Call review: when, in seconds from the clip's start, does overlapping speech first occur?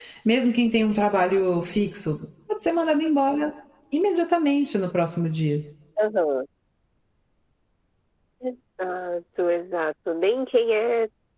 none

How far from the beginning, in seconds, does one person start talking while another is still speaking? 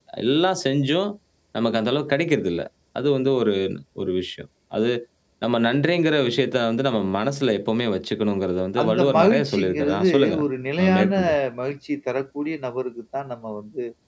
8.8 s

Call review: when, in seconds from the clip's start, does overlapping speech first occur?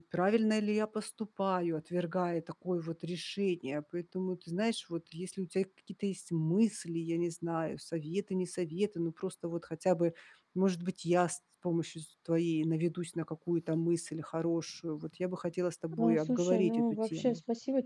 15.9 s

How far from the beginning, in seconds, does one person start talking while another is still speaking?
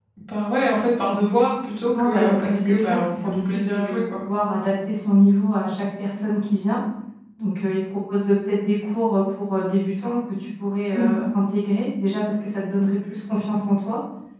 1.9 s

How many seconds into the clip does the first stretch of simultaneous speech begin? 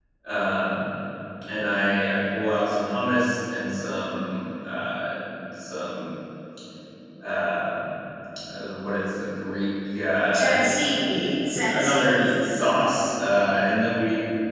10.3 s

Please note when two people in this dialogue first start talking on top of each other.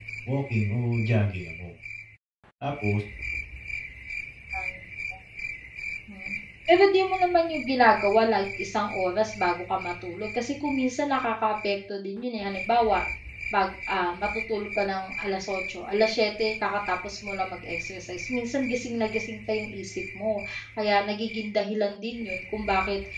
none

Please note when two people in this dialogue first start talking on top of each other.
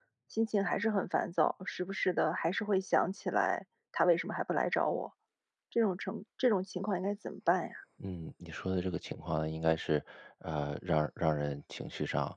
none

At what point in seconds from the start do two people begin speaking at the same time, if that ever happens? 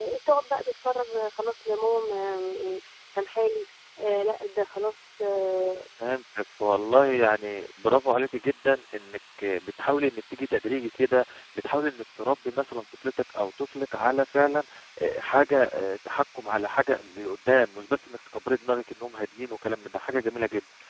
none

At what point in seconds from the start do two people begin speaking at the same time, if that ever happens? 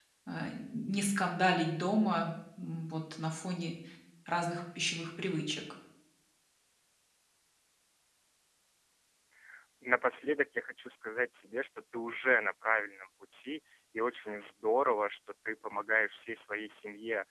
none

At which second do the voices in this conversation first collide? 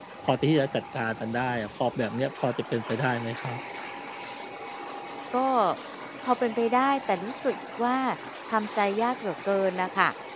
none

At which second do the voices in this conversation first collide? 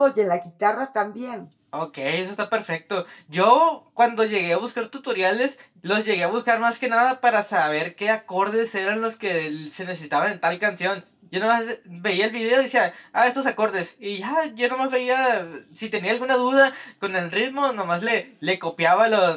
none

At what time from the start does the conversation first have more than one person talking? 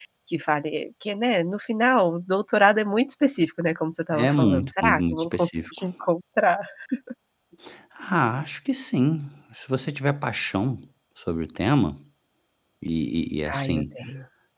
4.1 s

